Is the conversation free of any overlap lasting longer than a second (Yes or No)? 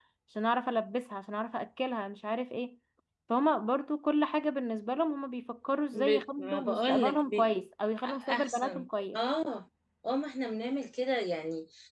No